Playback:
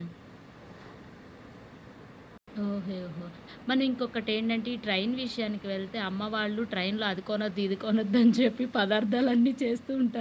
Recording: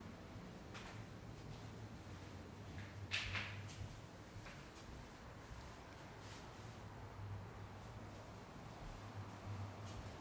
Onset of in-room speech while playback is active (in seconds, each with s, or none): none